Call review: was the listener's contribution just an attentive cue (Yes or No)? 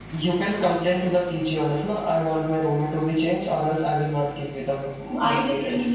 No